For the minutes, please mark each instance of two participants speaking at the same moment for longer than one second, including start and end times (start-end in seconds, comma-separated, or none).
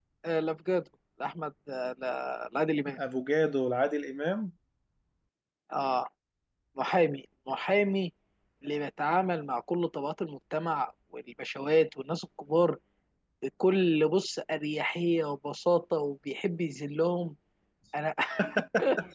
none